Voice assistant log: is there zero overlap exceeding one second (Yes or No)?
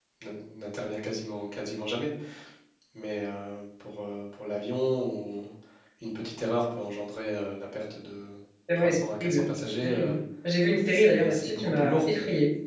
No